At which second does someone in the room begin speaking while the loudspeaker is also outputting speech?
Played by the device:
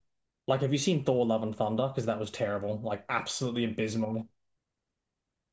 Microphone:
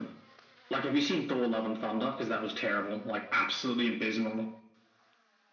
none

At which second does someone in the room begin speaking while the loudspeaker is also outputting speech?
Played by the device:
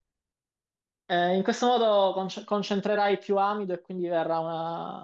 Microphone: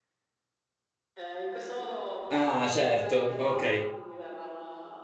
2.3 s

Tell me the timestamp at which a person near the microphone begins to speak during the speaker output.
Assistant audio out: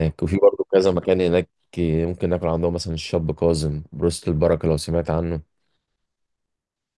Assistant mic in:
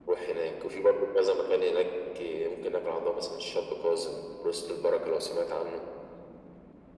none

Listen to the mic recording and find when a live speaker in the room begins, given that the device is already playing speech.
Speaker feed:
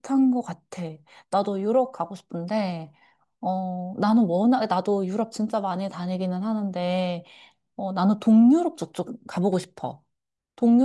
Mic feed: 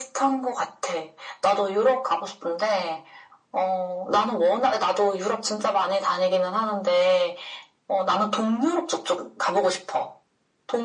none

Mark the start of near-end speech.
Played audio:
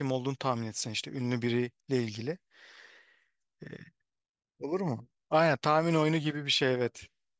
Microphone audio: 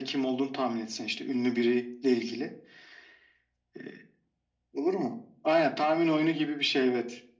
none

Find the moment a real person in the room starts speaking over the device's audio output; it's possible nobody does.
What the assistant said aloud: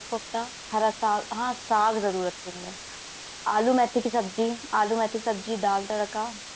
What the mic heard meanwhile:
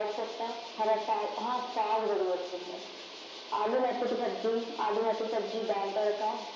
none

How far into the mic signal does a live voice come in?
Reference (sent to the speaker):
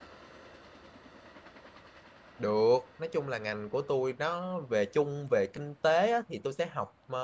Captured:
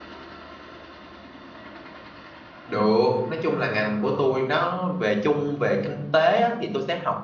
none

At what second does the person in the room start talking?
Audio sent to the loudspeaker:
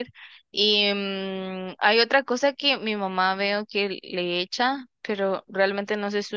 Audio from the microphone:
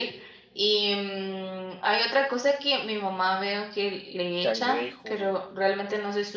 4.4 s

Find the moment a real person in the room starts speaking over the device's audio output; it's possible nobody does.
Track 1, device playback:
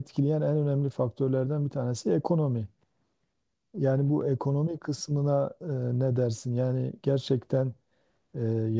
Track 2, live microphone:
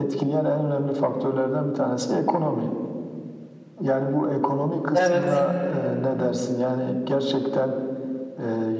4.9 s

